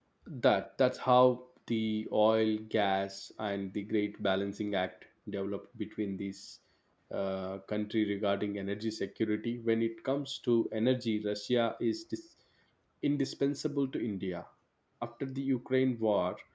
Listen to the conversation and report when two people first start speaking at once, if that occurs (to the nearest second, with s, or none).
none